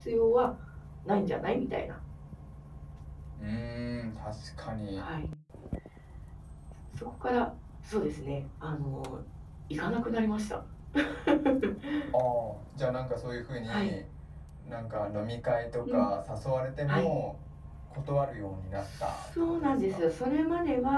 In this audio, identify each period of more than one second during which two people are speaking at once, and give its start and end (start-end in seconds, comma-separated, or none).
18.8-20.0